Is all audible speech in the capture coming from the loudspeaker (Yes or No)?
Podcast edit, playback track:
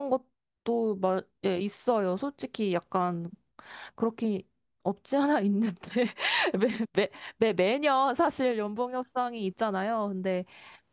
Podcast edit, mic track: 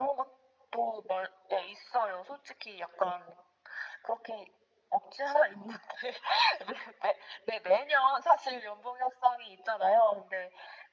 Yes